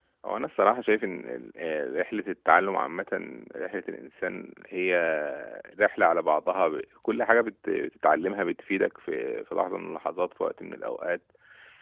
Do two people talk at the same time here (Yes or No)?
No